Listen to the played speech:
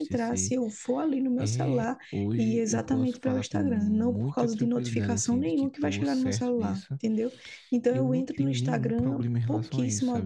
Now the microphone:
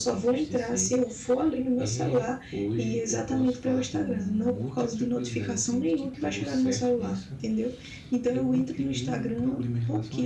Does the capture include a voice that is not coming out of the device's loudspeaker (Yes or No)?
No